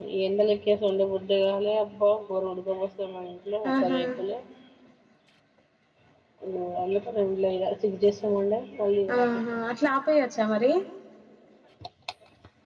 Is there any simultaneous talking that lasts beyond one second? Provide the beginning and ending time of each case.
none

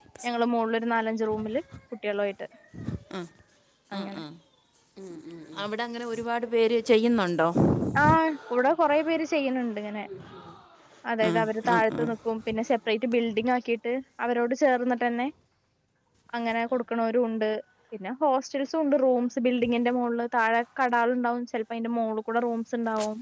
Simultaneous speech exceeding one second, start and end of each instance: none

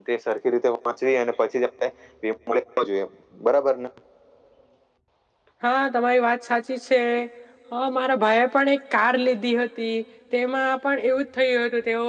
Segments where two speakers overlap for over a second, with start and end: none

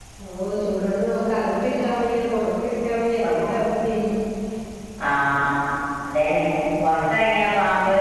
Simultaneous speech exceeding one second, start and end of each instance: none

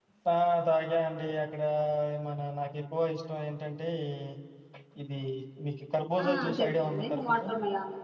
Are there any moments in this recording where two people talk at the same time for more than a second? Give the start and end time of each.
6.2-7.5

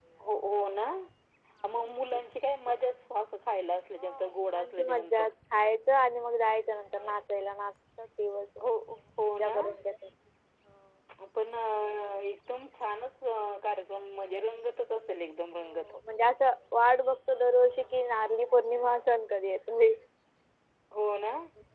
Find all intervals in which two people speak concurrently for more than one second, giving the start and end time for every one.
4.0-5.2

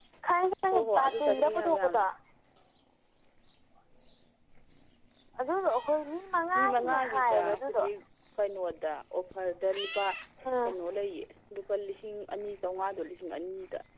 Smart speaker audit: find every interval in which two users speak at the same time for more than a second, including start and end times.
0.7-2.0, 6.5-7.8

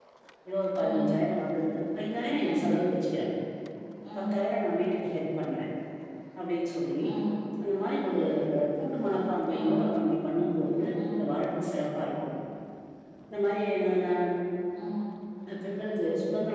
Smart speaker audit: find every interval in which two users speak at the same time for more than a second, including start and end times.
none

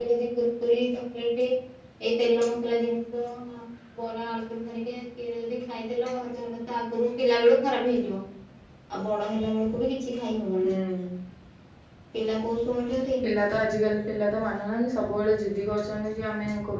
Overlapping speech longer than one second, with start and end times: none

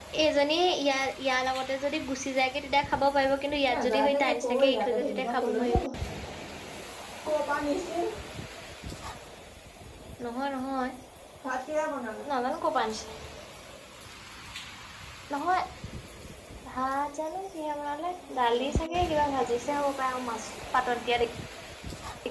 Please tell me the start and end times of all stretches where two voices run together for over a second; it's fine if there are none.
3.7-5.8

